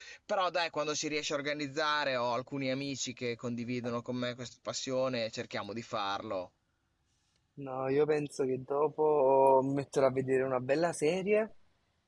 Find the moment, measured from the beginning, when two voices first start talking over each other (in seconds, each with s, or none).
none